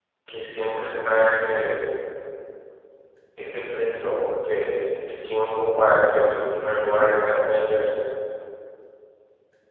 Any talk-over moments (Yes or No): No